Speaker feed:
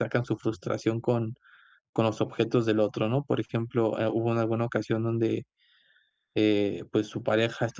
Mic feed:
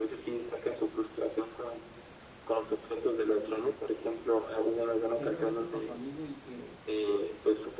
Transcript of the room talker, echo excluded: ser honesto con tu amigo y que

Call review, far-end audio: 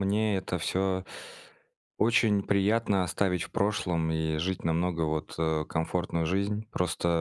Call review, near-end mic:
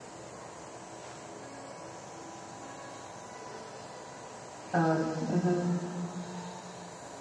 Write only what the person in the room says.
А, мгм.

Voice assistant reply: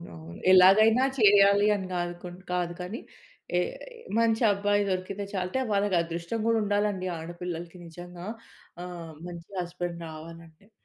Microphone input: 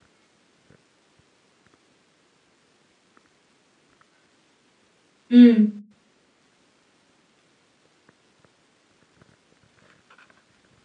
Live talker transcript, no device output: హ్మ్.

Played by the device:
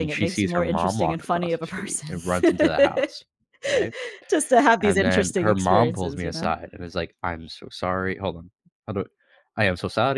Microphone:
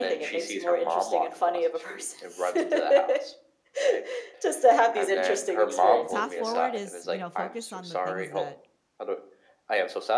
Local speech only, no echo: path forward is, you know, focus on the things that

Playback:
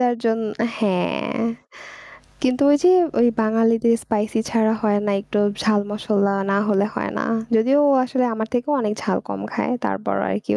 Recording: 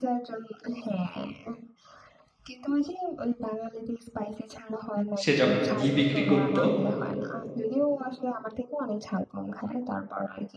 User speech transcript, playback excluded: সে যখন ঘি বিক্রি করত

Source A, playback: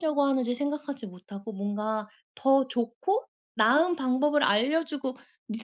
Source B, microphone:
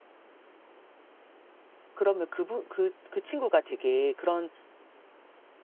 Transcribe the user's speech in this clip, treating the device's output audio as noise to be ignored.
그러면 그분 그 그 친구가 되게 그런

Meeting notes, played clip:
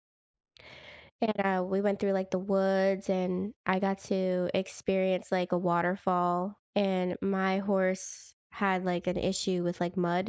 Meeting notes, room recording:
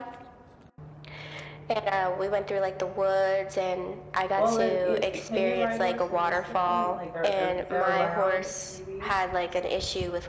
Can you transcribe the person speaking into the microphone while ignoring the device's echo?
Well, then, e i can you ride horses in Switzerland, like, are are is that allowed, maybe?

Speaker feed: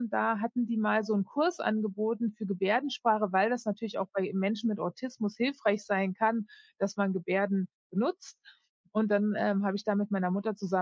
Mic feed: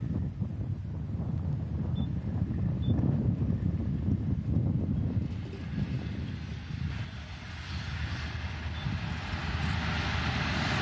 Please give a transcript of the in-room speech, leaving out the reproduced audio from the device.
none

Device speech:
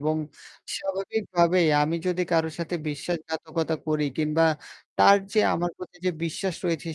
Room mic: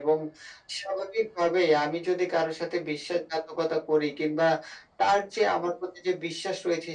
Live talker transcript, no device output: none

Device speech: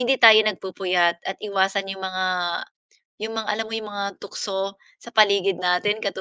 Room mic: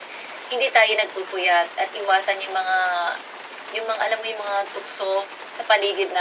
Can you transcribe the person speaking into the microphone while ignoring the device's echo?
none

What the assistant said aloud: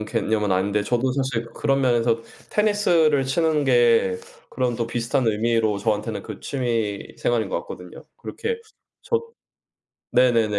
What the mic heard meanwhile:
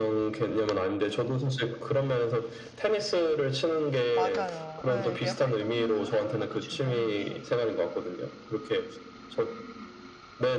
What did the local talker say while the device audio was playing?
맞아요. 예 이게 활동을 하는 것도 중요한데

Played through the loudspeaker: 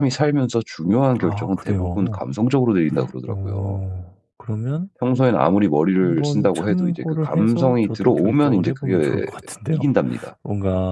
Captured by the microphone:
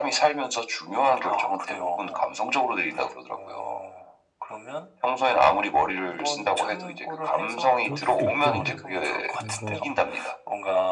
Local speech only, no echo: 그럴 수 있겠네요. 뭔가

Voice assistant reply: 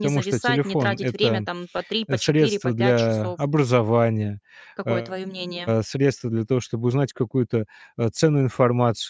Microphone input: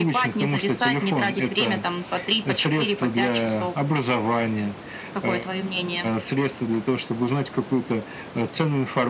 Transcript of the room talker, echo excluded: none

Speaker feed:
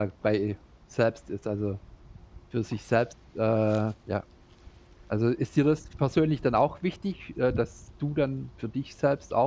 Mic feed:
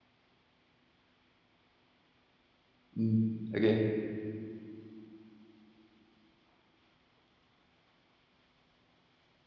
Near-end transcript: Mhm. Okay.

